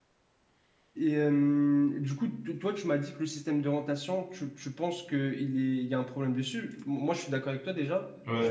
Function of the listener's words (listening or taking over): taking over